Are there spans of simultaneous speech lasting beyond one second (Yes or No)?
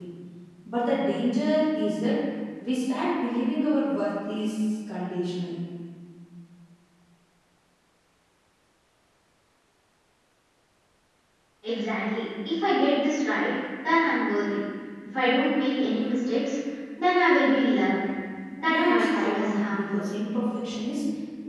Yes